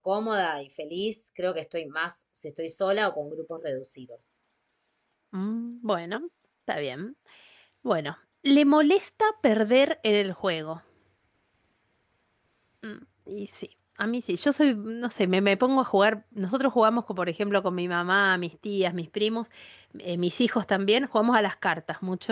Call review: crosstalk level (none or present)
none